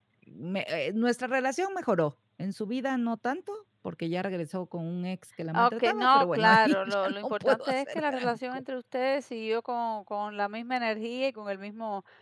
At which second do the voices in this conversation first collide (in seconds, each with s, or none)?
5.5 s